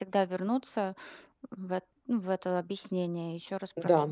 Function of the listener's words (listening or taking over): taking over